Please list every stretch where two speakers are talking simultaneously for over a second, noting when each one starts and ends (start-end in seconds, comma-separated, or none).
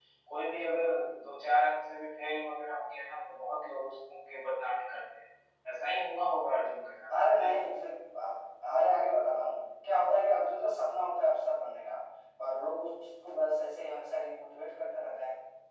none